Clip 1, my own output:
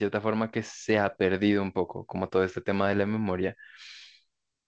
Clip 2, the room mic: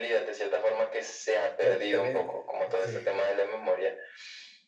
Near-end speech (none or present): present